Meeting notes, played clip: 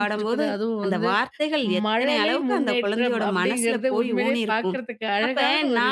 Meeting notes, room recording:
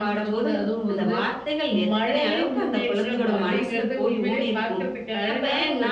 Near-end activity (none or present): present